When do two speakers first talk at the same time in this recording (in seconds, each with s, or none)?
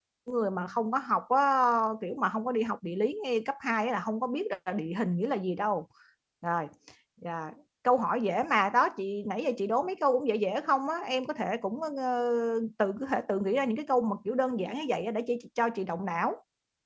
none